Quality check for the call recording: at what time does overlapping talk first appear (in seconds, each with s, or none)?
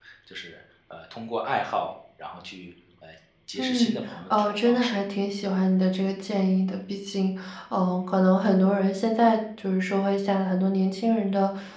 3.6 s